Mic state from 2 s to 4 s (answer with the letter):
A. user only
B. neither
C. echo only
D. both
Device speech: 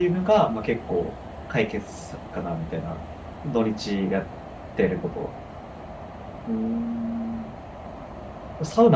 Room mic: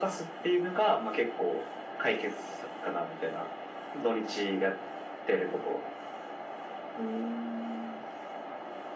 C